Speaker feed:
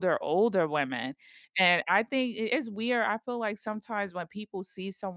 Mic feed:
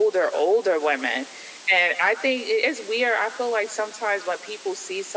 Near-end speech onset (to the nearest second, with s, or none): none